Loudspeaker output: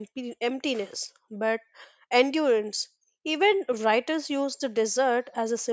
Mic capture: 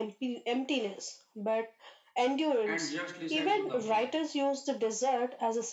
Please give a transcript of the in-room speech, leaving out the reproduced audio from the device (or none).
and just listen to the wind.